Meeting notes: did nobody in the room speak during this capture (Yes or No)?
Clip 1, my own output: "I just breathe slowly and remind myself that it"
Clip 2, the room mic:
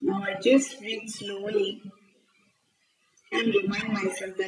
Yes